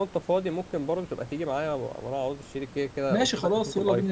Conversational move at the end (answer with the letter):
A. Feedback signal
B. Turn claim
B